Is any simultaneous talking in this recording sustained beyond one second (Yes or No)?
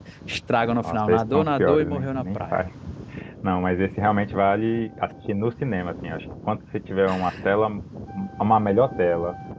Yes